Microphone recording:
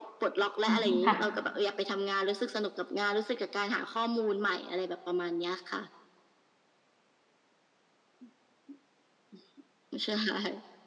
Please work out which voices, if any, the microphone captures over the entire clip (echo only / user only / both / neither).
both